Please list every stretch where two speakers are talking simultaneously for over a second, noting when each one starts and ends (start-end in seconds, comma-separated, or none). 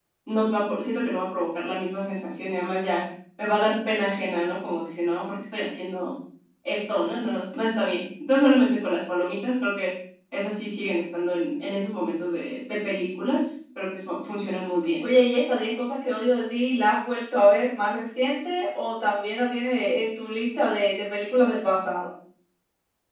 none